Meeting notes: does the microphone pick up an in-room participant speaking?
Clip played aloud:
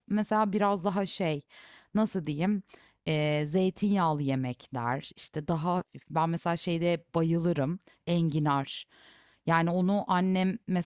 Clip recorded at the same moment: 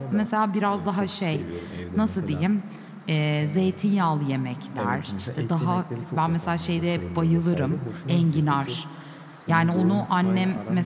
Yes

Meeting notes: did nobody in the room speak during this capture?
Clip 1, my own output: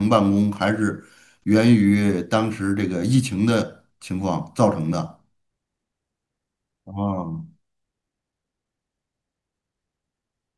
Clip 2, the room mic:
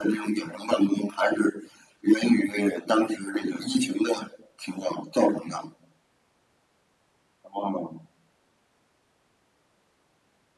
Yes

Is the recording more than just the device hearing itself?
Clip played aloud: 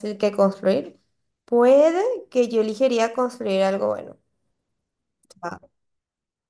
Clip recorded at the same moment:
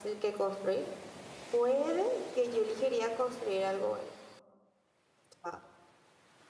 No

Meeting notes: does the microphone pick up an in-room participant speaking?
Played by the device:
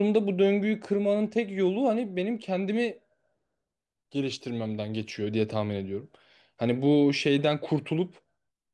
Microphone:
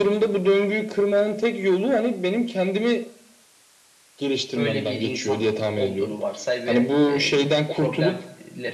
Yes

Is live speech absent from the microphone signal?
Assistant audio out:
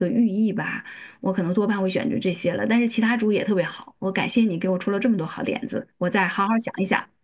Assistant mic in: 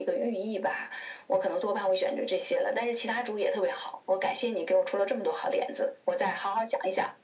Yes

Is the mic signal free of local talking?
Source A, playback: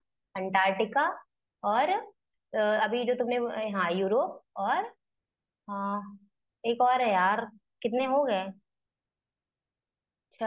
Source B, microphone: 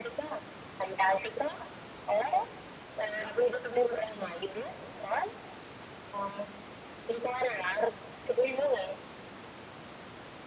Yes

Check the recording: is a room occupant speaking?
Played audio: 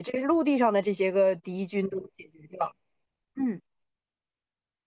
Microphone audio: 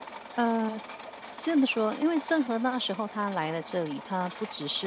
Yes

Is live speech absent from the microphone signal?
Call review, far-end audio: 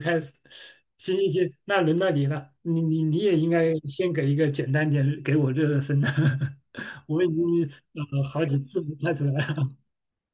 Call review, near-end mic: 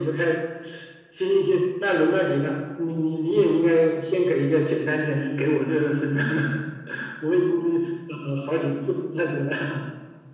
Yes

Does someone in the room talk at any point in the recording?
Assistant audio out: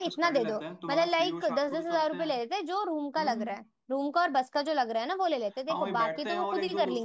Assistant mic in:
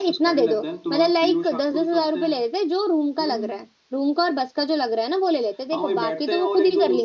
No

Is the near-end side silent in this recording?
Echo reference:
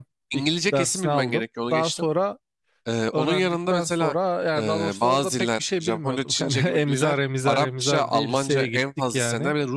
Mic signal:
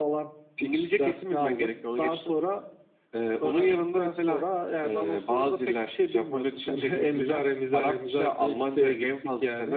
Yes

